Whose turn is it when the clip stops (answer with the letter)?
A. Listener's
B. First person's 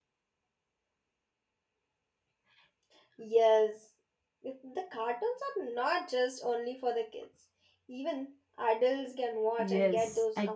A